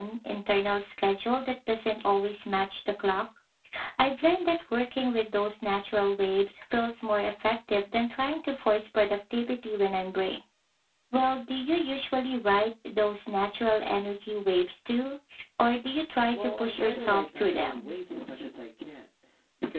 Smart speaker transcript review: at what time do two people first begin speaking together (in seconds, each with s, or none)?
16.3 s